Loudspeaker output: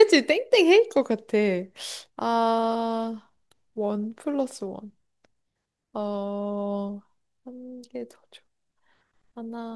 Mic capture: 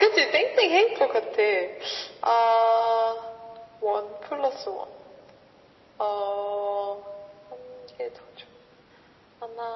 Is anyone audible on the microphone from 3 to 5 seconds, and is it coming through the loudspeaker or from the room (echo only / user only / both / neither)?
echo only